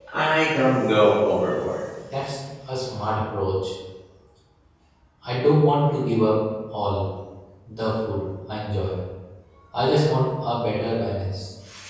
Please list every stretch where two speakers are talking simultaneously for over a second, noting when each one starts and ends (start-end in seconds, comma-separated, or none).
none